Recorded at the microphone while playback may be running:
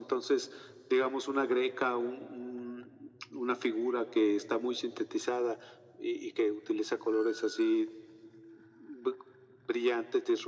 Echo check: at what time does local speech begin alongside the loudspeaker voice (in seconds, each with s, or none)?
none